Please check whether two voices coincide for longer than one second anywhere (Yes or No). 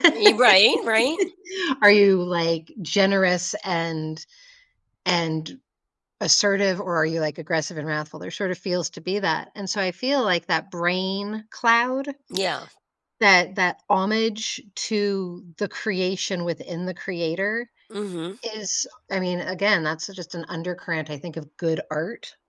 No